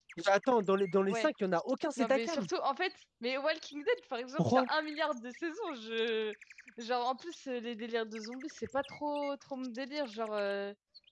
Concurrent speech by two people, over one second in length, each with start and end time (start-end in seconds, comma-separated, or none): none